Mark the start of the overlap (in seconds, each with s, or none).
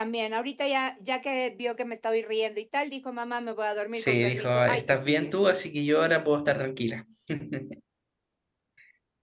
3.9 s